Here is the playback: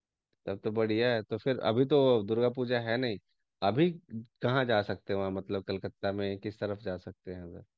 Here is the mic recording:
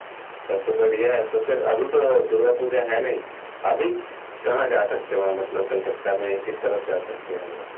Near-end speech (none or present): none